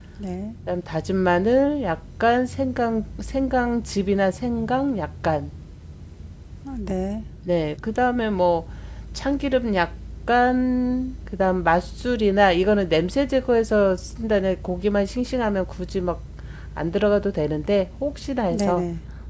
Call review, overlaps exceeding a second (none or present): none